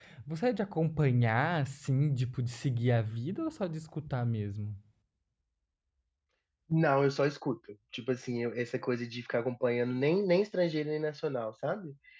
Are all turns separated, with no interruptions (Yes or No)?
Yes